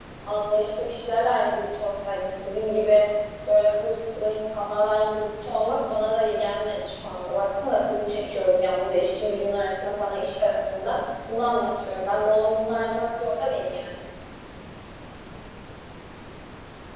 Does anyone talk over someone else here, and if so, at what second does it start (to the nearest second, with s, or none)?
none